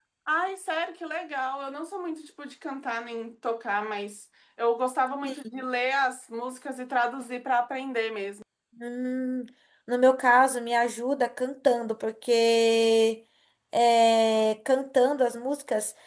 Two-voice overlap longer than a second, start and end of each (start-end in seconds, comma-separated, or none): none